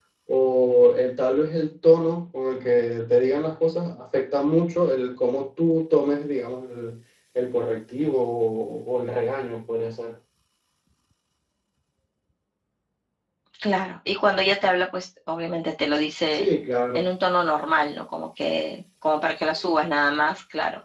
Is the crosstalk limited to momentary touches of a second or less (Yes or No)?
Yes